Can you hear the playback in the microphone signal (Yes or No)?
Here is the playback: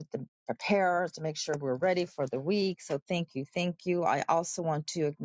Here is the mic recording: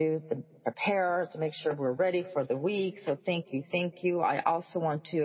Yes